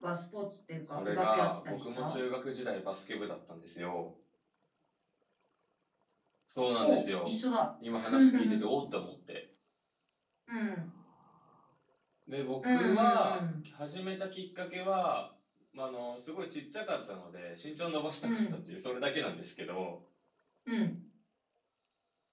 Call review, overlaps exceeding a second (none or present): present